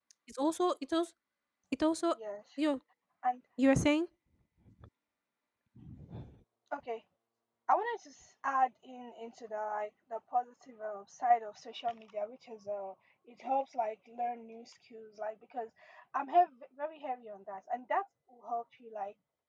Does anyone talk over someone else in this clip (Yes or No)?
No